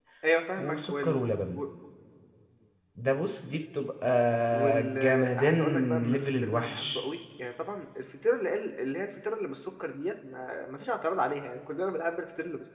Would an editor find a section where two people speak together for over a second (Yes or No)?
Yes